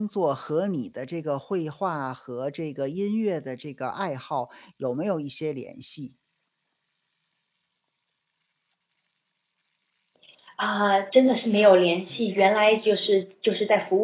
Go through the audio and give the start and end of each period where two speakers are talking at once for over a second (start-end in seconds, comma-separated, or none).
none